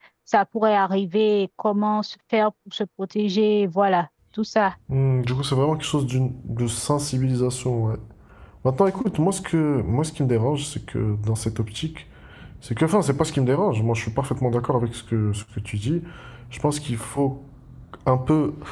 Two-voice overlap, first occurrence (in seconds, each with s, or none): none